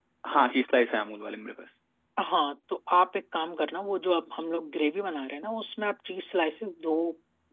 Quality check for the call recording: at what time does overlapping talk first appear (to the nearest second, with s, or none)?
none